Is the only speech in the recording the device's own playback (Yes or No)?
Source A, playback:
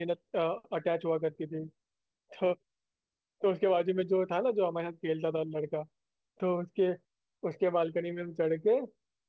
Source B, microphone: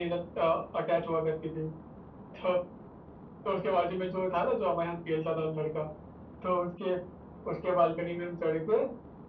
Yes